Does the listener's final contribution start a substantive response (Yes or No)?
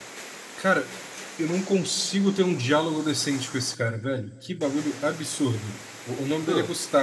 No